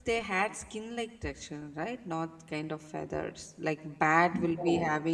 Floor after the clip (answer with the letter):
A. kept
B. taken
A